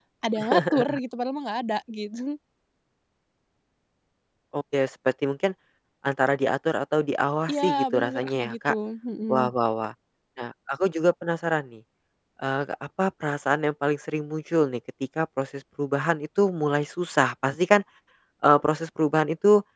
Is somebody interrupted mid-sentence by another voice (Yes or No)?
Yes